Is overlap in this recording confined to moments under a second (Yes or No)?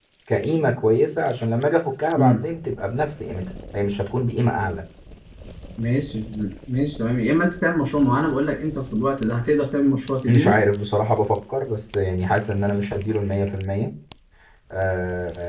Yes